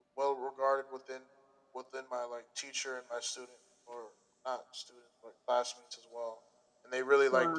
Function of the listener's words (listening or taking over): listening